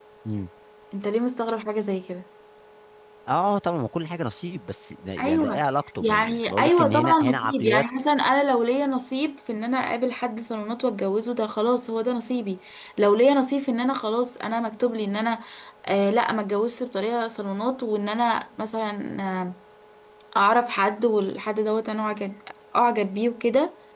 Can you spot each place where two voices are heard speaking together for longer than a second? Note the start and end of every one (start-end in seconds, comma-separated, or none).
6.0-7.8